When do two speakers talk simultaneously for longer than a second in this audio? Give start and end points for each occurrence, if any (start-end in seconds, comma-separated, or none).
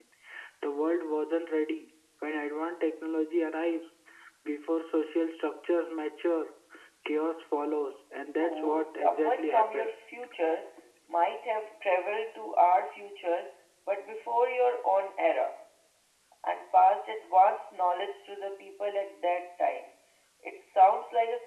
8.2-9.9